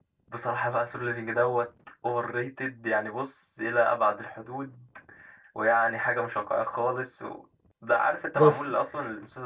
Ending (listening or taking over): listening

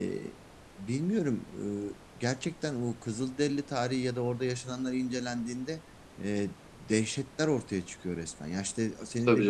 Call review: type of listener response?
listening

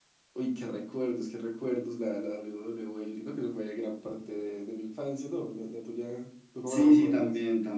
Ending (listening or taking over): taking over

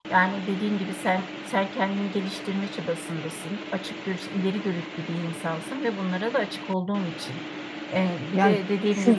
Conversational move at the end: listening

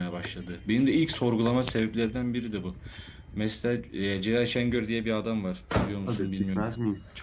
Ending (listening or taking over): taking over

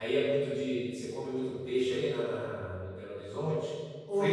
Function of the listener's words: taking over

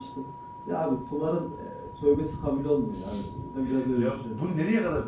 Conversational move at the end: taking over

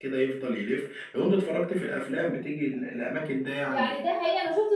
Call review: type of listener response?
taking over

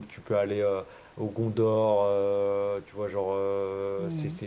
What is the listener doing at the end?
listening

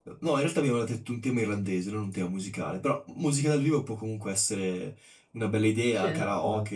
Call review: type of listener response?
taking over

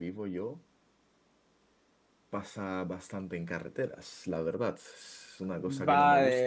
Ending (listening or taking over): taking over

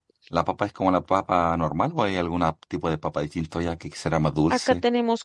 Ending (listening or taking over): taking over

